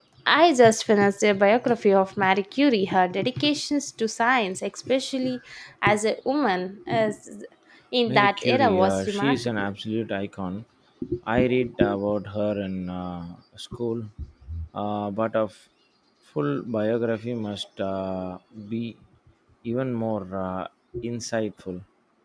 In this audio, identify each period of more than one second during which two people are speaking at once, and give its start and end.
8.1-9.6

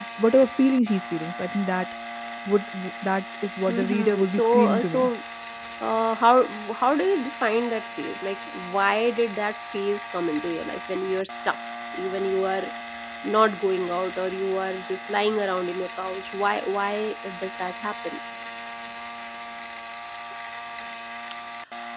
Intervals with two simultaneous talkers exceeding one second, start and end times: 3.7-5.1

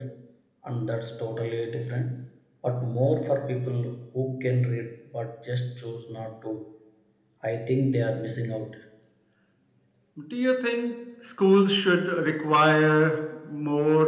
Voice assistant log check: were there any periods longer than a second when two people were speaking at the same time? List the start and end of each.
none

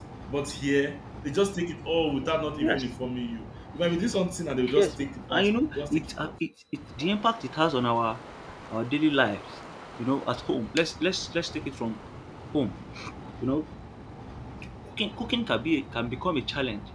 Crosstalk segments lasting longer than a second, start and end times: 4.8-6.3

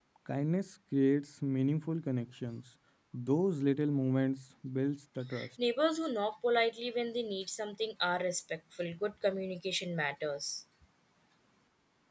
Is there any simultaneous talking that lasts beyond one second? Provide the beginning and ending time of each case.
none

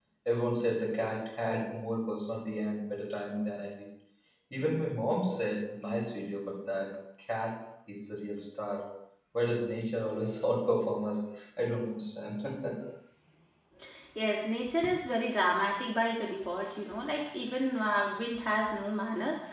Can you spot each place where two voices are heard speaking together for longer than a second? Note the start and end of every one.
none

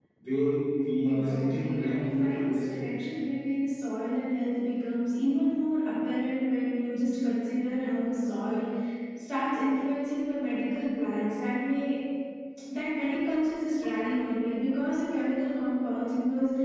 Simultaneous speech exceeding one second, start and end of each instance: 1.1-2.9

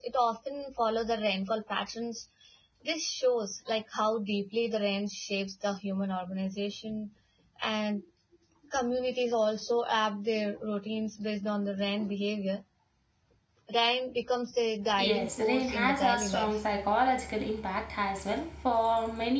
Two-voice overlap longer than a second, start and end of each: 15.0-16.6

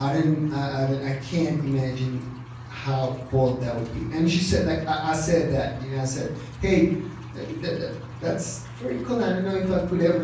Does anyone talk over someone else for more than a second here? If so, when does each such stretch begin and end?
none

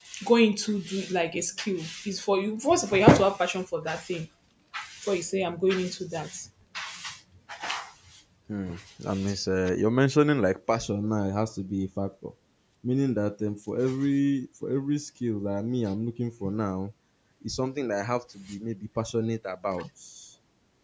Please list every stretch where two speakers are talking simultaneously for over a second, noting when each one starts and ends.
none

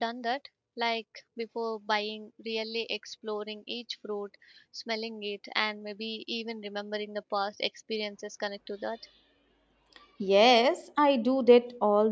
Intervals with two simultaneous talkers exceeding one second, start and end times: none

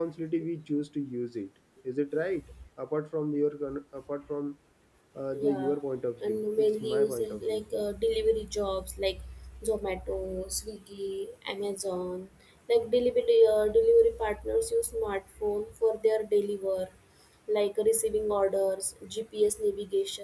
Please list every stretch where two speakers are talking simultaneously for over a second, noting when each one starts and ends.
6.3-7.6

